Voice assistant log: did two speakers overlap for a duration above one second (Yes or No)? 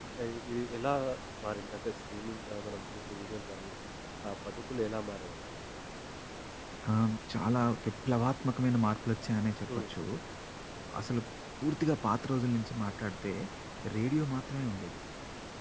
No